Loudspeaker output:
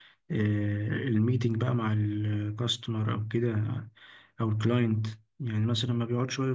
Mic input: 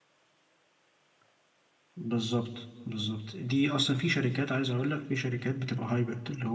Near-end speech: present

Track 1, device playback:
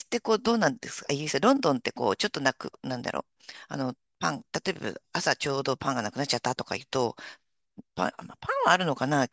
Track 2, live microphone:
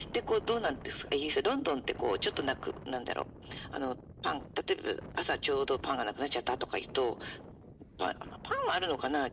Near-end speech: none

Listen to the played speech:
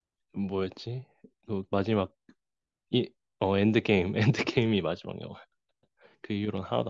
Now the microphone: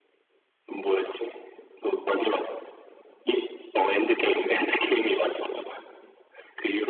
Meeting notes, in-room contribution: none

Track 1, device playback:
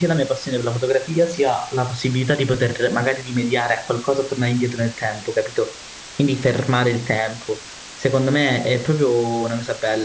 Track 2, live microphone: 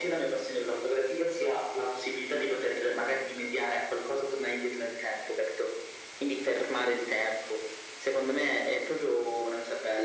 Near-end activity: none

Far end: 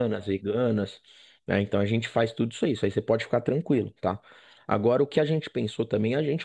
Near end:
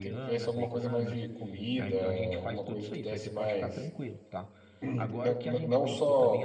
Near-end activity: present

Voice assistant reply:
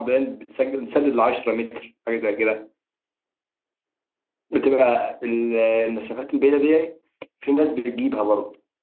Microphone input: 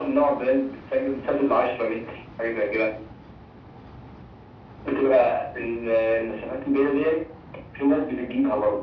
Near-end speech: none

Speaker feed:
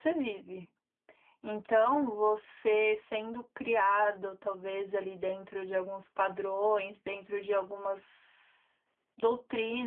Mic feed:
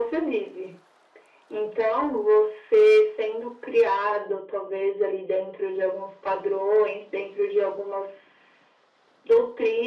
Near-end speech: none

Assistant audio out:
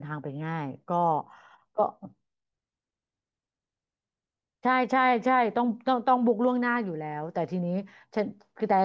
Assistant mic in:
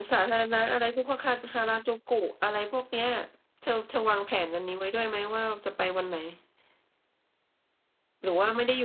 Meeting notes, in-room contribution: present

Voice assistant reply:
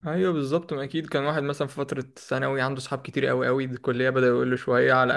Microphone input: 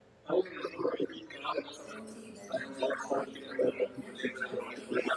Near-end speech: present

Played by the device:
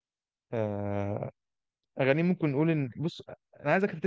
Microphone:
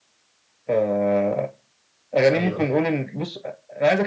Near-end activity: present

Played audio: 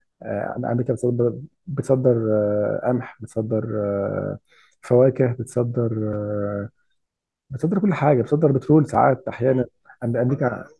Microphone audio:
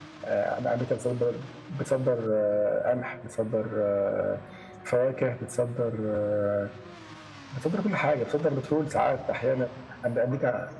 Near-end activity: none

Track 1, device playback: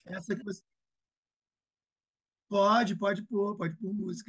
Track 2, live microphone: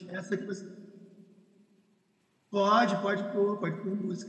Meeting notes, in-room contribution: none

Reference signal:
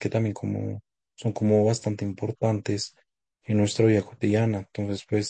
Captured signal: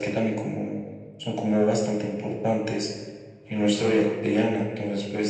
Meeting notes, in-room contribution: none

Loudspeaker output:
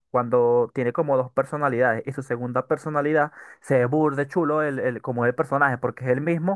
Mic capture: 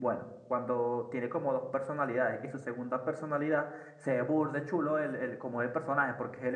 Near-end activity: none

